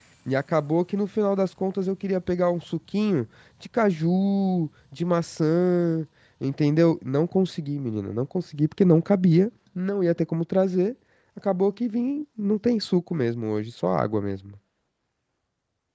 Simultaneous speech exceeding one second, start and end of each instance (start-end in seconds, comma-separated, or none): none